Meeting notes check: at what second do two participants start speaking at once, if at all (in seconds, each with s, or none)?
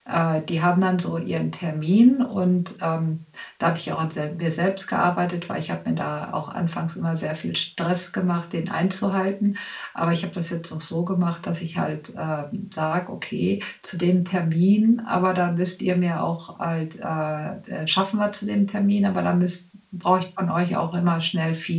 none